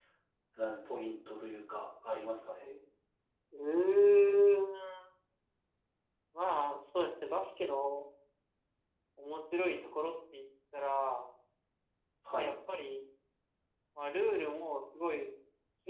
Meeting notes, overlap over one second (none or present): none